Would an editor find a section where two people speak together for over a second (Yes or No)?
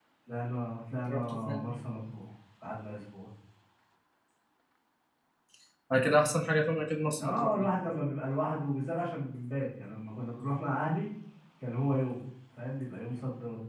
No